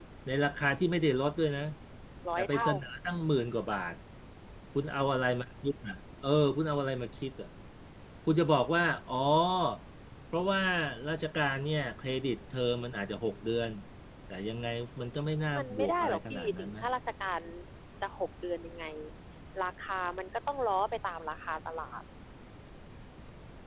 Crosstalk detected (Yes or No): Yes